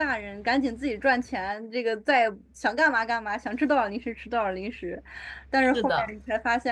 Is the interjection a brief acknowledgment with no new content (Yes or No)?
Yes